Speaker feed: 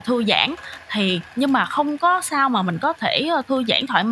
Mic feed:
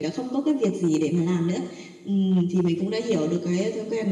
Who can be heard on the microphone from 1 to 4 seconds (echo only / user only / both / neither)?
user only